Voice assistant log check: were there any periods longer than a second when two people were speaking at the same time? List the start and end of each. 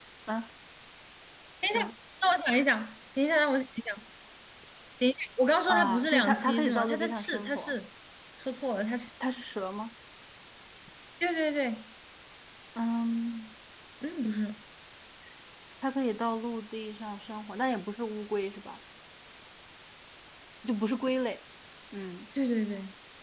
5.7-7.7

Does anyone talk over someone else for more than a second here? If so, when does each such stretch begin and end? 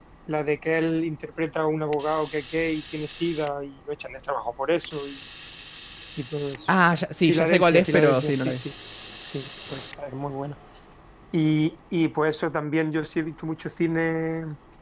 7.2-8.6

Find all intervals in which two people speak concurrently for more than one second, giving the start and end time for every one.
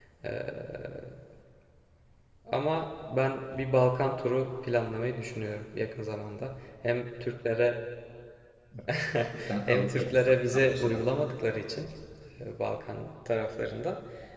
9.6-11.0

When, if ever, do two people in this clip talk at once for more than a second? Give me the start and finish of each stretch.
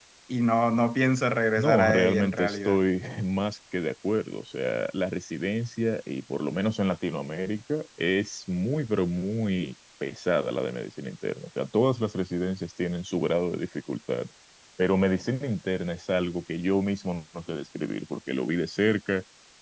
1.6-2.8

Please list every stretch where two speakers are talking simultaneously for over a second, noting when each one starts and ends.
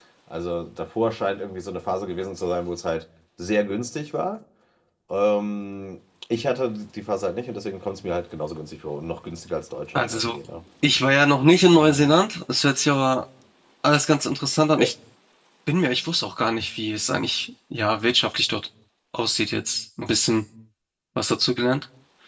none

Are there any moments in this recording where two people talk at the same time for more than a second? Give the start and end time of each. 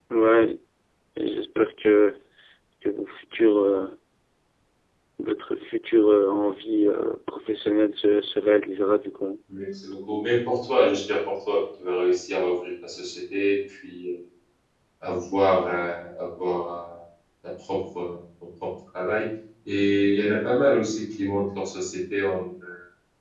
none

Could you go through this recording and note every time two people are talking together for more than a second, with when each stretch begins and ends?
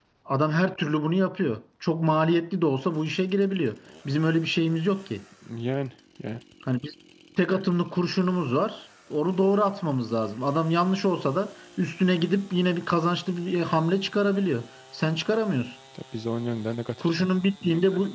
none

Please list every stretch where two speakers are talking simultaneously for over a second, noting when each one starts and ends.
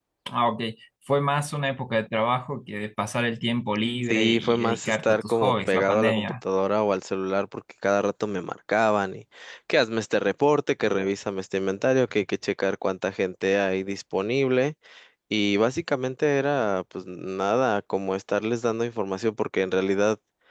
4.1-6.3

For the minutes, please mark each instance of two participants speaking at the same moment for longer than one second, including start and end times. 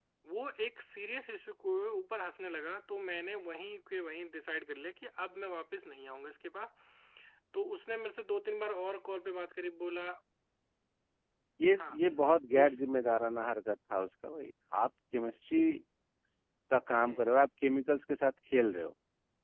none

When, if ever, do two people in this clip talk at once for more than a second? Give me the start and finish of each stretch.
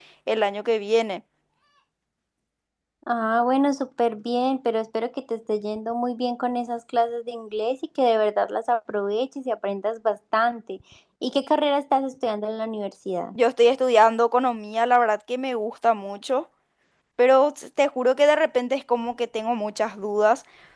none

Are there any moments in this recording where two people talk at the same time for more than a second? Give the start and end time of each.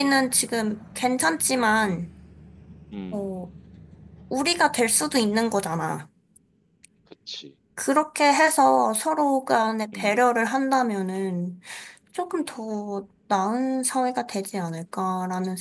none

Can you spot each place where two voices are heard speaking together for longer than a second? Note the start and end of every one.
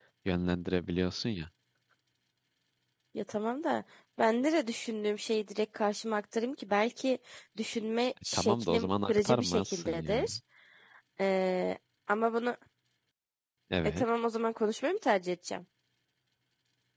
8.3-10.3

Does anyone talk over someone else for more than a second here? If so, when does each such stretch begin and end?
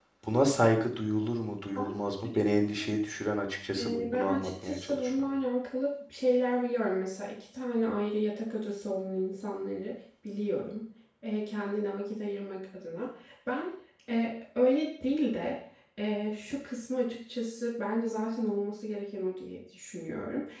3.8-5.3

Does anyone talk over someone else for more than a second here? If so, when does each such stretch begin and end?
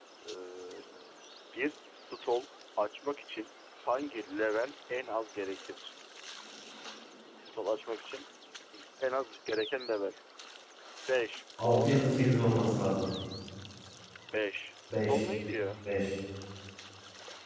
11.6-13.0

